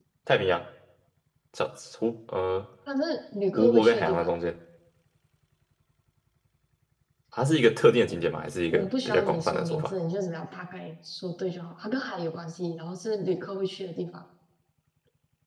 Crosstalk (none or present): present